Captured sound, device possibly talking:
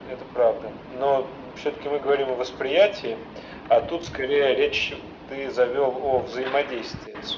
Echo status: present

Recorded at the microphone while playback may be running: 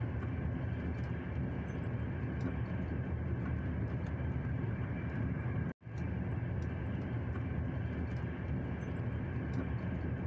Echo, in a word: none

